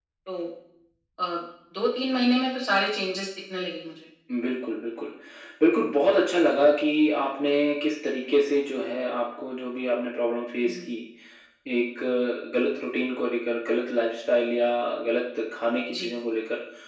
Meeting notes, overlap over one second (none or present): none